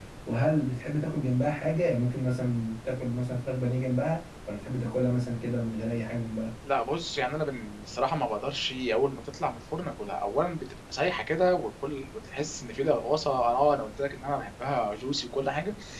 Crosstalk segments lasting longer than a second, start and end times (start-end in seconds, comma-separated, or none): none